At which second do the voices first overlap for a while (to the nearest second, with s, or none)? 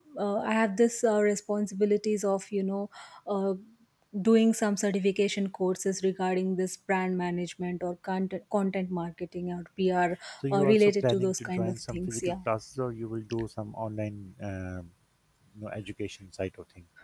10 s